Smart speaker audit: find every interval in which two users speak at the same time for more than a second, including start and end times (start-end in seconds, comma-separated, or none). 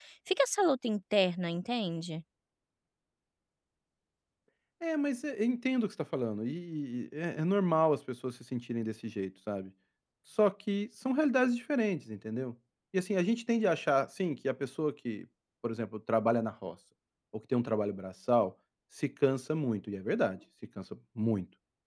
none